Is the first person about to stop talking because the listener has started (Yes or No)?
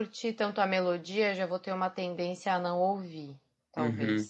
Yes